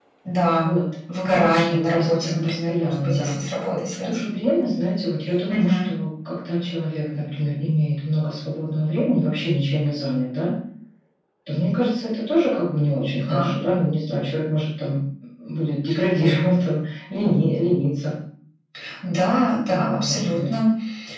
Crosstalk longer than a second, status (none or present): present